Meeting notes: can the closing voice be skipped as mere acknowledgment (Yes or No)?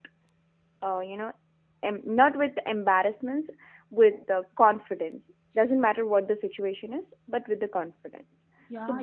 No